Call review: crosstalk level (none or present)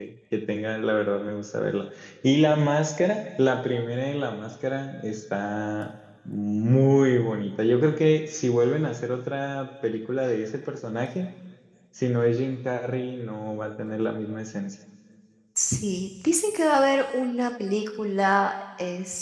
none